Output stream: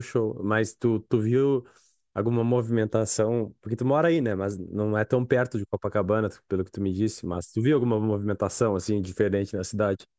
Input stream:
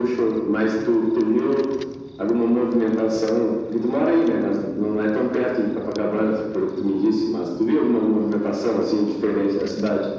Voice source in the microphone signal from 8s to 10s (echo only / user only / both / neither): echo only